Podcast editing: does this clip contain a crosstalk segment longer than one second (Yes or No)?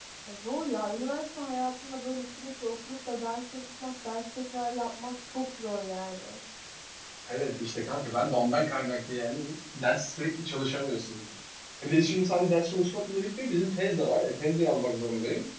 No